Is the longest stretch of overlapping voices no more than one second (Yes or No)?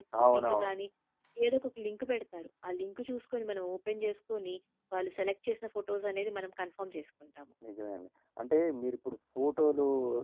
Yes